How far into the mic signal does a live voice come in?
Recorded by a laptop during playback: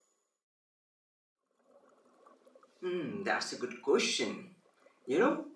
2.8 s

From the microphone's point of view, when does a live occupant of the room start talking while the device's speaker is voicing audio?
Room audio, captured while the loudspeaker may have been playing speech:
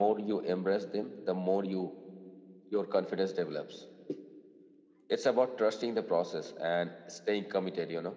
none

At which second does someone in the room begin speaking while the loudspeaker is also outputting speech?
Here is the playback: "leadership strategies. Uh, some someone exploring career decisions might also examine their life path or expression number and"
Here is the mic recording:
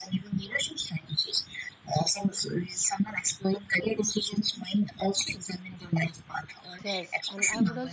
6.8 s

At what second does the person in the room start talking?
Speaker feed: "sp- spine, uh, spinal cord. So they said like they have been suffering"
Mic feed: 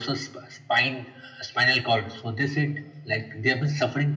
none

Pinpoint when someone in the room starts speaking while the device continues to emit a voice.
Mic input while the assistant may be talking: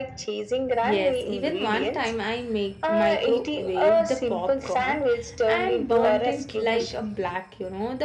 0.8 s

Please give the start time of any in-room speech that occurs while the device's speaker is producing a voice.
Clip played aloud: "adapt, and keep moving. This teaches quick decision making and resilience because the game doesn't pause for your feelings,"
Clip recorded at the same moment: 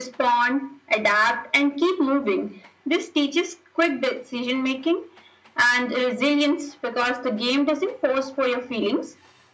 none

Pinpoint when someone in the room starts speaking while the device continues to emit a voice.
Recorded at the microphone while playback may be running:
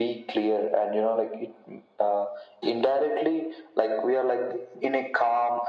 none

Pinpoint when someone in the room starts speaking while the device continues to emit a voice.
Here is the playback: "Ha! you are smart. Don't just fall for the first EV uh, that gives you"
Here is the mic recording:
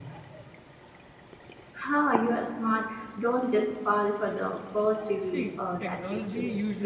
5.2 s

